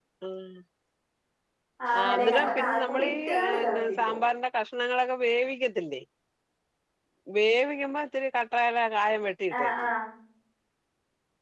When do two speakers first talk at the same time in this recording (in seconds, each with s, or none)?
2.0 s